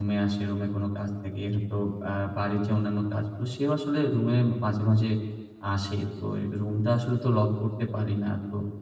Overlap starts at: none

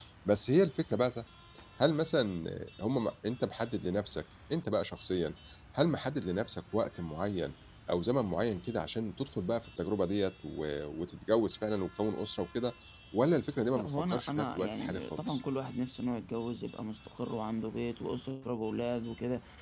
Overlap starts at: 13.8 s

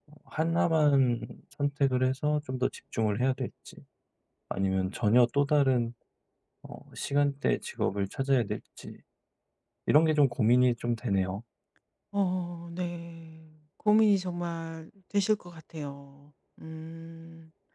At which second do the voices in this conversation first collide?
none

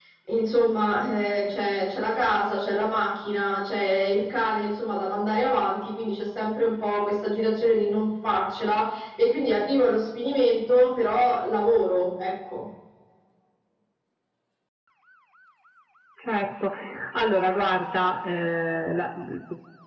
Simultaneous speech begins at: none

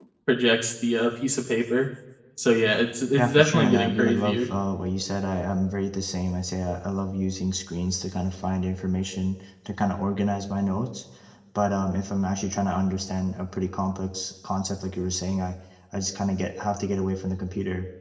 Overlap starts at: 3.1 s

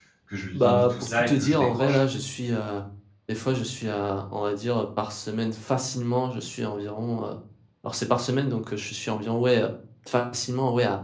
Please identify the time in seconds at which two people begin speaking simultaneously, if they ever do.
0.5 s

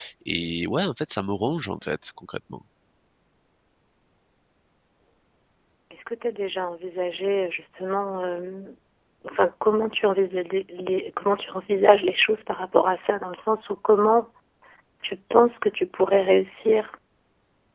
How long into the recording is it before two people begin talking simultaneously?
none

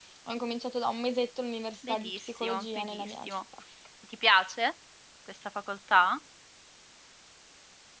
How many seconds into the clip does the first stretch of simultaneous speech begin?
1.8 s

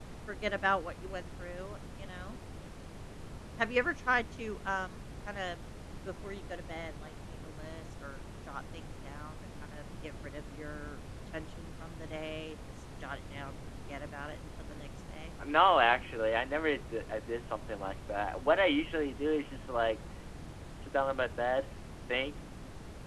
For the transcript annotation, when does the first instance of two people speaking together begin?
none

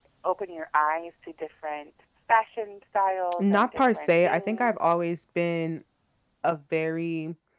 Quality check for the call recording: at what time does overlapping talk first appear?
3.3 s

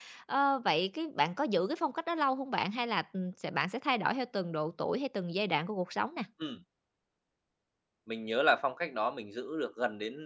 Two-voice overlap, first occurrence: none

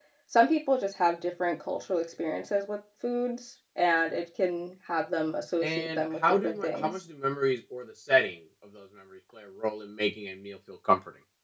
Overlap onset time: 5.6 s

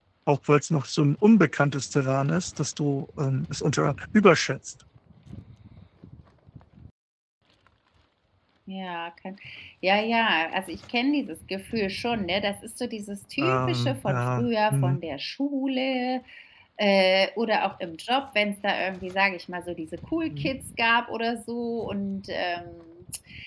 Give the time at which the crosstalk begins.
13.4 s

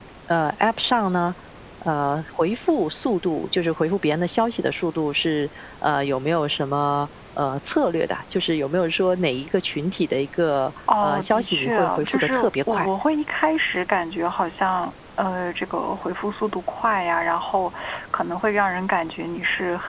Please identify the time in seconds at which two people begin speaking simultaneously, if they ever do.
10.9 s

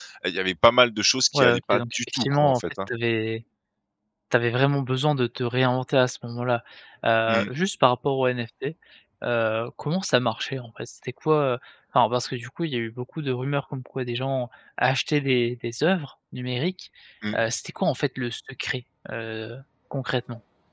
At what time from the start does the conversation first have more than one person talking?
1.3 s

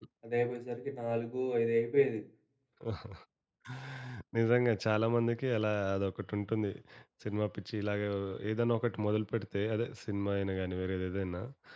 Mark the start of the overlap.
none

